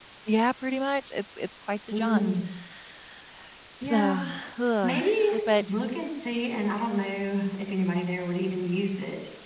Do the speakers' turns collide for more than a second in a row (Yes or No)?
No